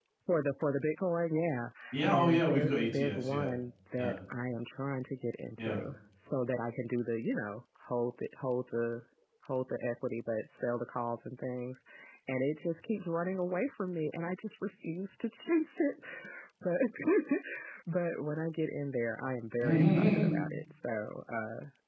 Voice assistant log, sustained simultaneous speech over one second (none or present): present